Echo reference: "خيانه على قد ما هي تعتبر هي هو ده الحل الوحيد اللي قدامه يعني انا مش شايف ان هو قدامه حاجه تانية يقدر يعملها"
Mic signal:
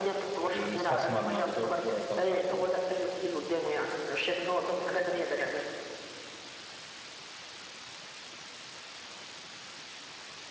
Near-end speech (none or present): present